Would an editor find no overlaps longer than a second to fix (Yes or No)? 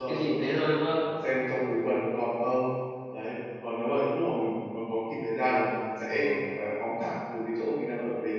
Yes